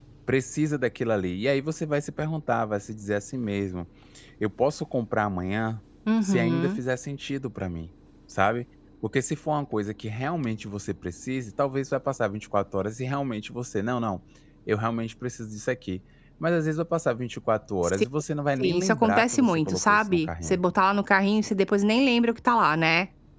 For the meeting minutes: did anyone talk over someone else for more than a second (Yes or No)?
Yes